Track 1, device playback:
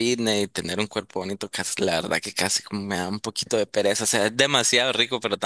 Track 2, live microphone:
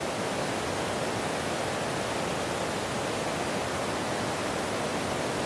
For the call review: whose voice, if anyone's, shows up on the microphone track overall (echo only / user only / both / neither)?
neither